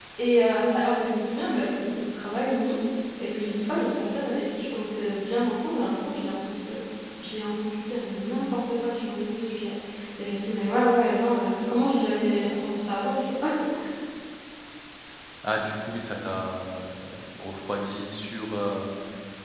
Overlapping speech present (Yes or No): No